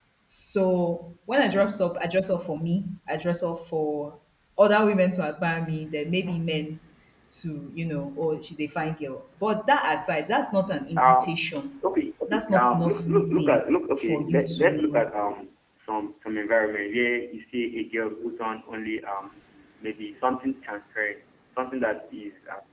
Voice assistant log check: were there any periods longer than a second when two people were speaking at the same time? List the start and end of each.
12.3-15.1

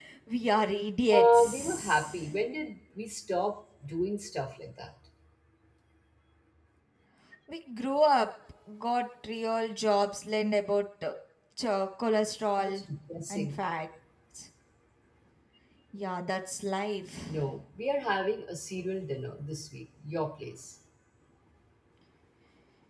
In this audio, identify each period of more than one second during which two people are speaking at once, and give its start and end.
1.1-2.3

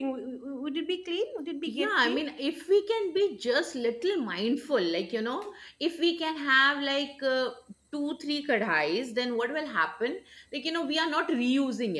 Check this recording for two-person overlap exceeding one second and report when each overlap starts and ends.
none

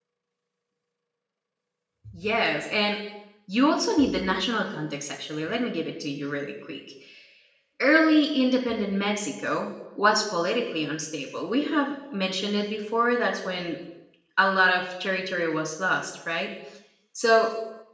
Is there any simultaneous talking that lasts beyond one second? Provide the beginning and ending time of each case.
none

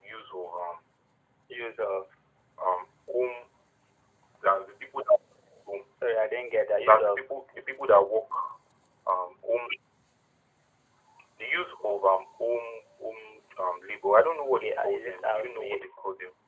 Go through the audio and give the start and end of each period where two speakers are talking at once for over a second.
14.6-15.9

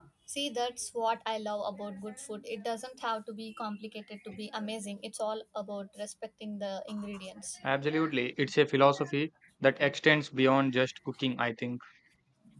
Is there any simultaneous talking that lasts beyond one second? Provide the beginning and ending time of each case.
none

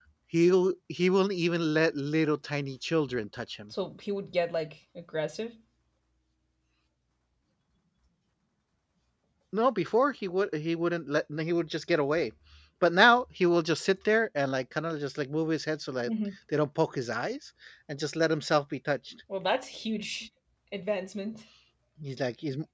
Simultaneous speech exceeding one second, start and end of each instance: none

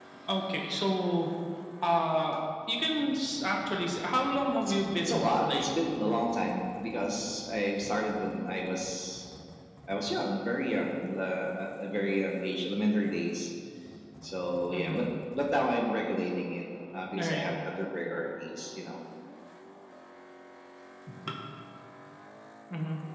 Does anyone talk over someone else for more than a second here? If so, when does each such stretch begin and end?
4.6-5.8

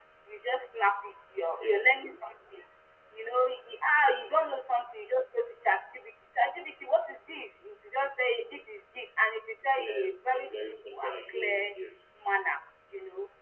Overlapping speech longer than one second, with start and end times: 9.8-11.8

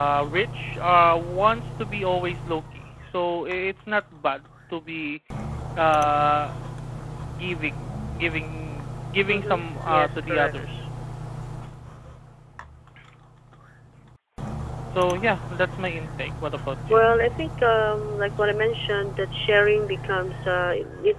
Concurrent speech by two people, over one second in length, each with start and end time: 9.3-10.5

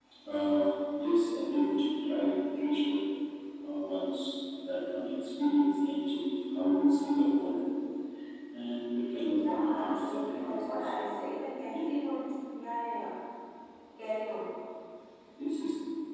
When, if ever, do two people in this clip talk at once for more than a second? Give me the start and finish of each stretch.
9.3-10.9

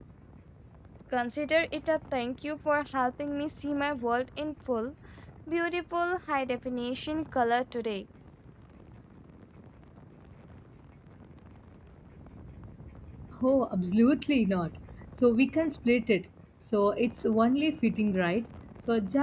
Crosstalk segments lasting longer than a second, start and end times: none

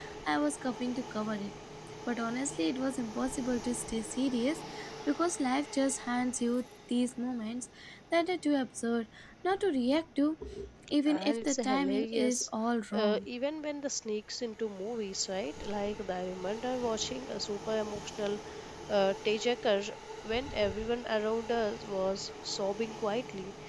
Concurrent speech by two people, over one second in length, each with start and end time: 11.1-12.5

